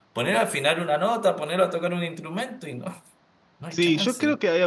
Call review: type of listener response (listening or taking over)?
taking over